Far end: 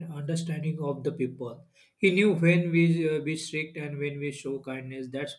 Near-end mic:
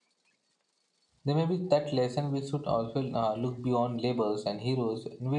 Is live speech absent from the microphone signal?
No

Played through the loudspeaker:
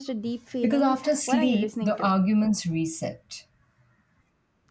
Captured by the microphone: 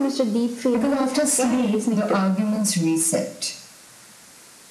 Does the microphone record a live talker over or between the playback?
No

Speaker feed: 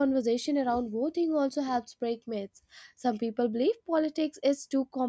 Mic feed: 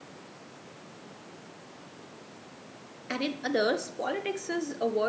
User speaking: Yes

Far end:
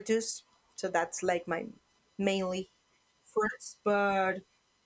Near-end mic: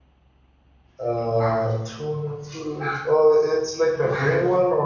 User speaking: Yes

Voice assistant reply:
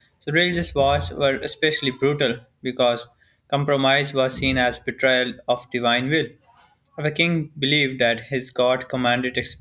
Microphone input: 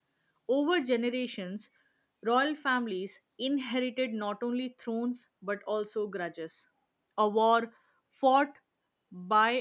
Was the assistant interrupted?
Yes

